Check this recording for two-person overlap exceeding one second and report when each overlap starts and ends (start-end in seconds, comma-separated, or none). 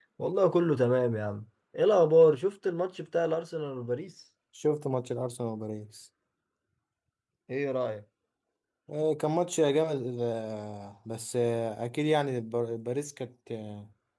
none